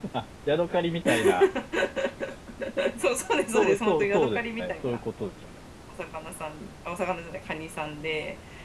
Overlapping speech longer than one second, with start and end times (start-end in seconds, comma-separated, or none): 3.5-5.0